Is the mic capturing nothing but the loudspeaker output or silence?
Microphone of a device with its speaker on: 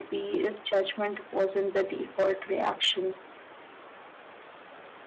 Yes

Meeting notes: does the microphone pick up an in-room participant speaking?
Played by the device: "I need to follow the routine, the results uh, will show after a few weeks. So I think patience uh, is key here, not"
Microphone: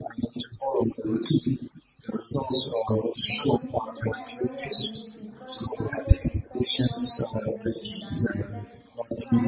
Yes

